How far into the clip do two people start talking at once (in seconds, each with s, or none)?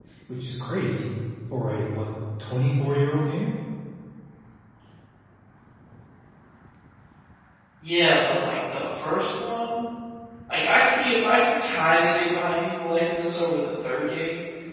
none